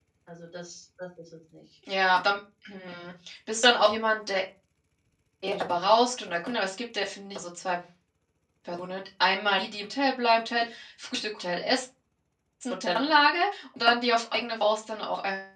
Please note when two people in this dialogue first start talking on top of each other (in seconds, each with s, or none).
none